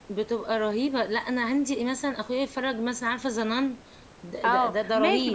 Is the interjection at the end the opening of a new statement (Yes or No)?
Yes